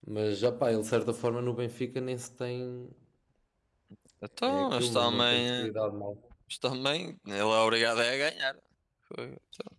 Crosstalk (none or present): present